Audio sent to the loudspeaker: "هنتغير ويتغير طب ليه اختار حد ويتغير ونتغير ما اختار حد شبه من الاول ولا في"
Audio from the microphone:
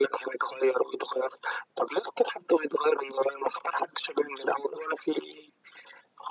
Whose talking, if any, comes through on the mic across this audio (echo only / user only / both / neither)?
echo only